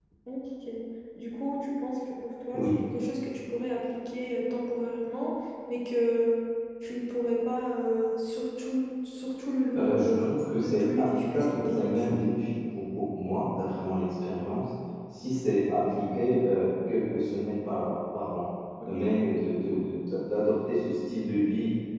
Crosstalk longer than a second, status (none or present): present